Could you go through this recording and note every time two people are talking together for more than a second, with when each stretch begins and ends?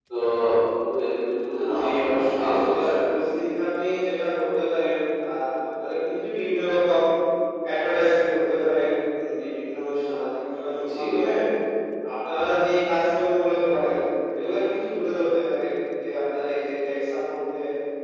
1.8-3.1

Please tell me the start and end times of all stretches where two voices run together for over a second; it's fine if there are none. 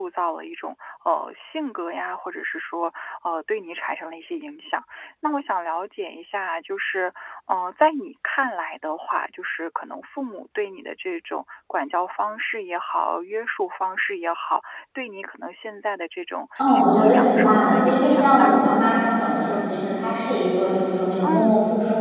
16.6-18.8

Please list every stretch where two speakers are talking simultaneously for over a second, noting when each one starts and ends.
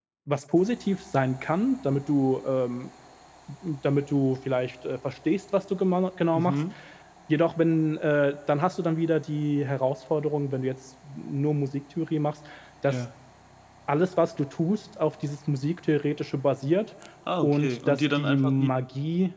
17.4-18.7

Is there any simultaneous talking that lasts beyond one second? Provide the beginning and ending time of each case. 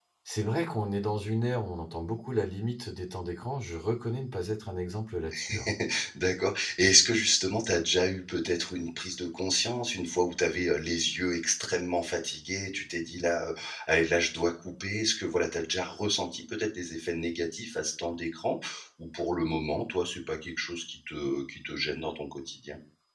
none

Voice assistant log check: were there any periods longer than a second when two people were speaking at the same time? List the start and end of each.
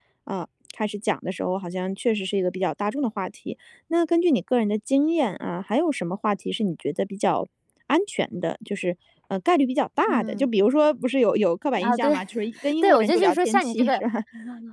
12.8-14.0

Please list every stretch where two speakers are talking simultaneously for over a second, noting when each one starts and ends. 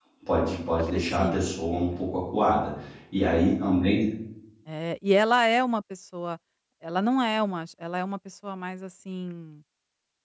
0.8-2.0

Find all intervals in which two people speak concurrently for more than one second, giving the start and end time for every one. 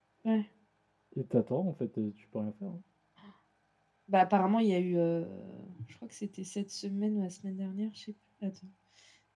none

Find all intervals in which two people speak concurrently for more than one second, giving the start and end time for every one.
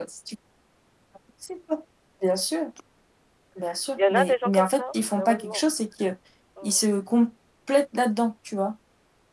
4.0-5.6

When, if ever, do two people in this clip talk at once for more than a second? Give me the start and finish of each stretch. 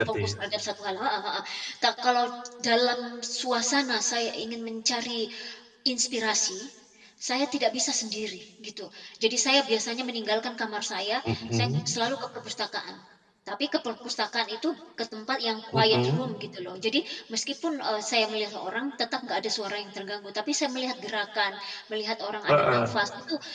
none

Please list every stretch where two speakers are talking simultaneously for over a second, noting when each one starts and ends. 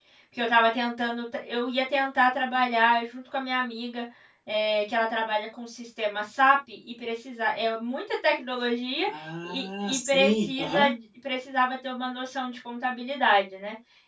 9.4-10.9

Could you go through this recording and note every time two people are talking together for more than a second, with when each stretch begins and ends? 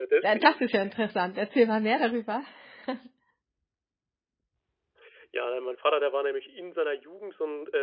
none

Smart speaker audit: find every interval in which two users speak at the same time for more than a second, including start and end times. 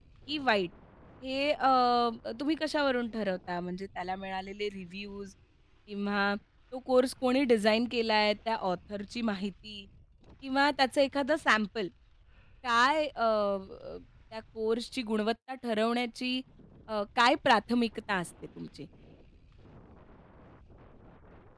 none

